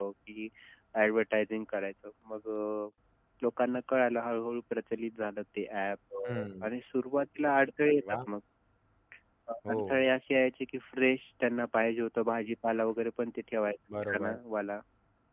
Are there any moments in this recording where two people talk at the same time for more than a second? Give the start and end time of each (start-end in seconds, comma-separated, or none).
none